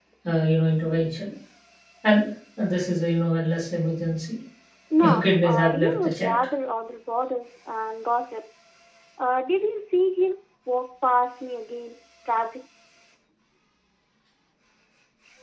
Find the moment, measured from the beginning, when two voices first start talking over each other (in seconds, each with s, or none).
5.0 s